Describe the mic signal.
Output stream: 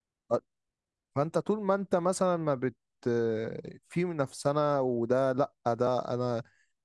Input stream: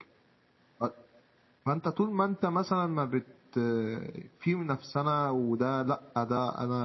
echo only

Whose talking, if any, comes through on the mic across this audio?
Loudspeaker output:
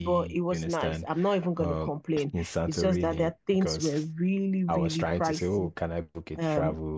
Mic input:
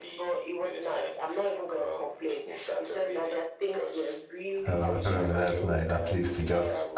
both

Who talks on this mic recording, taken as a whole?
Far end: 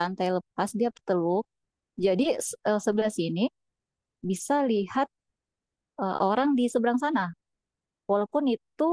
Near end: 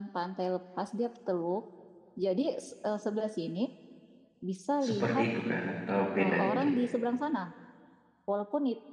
both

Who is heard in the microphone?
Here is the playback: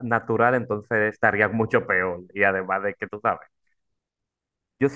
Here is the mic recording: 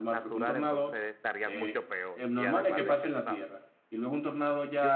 both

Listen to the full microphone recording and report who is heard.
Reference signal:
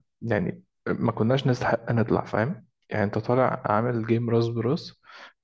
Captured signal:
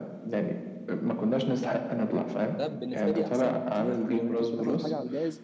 both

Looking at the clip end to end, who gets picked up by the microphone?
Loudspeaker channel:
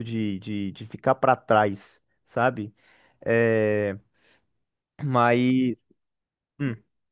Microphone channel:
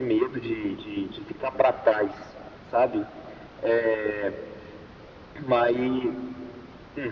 echo only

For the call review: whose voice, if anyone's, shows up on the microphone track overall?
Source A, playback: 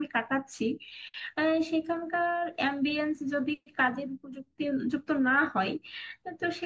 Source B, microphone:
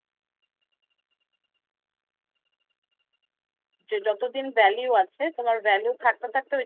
user only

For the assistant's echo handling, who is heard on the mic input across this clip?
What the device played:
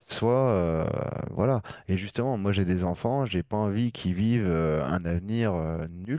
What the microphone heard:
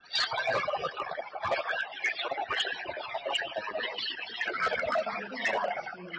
both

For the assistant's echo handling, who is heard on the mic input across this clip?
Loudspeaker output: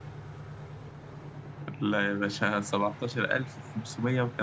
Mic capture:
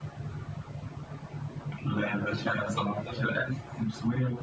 both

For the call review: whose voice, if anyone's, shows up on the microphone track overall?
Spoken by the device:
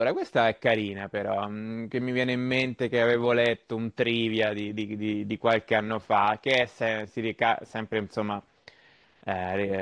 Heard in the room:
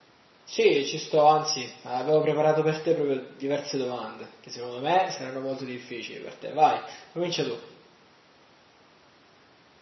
user only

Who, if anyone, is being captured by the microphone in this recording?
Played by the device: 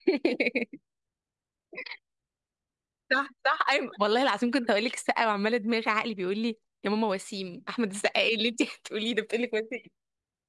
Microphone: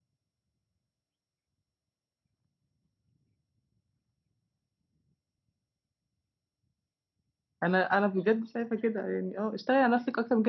user only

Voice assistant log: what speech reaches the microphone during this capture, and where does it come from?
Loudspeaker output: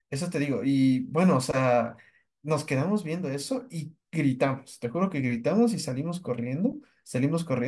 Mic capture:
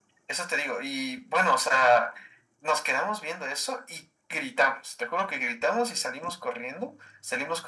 echo only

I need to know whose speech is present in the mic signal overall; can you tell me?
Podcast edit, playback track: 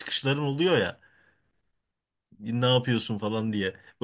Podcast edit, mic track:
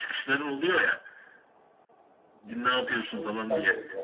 both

